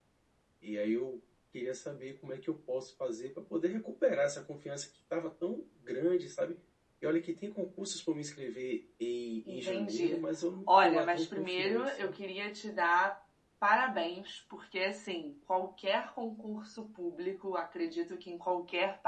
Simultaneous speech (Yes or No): Yes